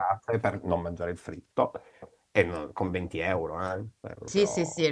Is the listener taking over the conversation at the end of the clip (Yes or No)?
Yes